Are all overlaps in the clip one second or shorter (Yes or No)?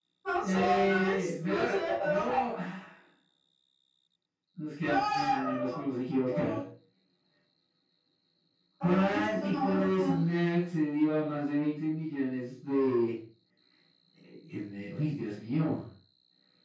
No